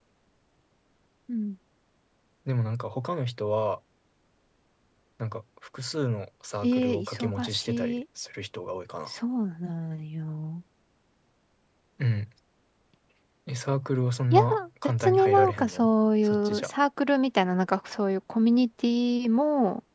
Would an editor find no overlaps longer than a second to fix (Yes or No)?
No